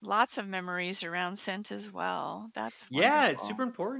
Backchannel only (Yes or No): No